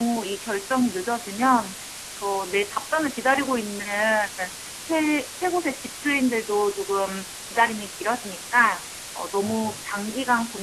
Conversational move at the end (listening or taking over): listening